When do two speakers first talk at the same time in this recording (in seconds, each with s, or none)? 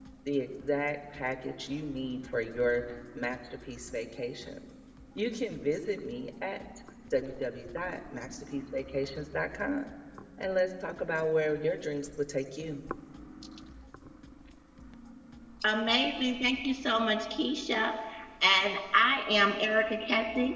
none